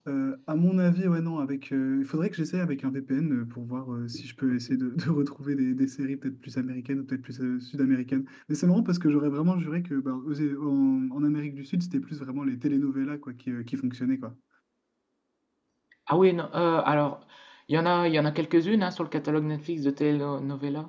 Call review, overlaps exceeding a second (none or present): none